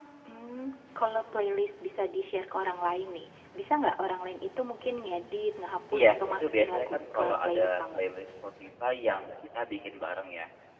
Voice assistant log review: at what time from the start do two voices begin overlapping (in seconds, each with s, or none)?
5.9 s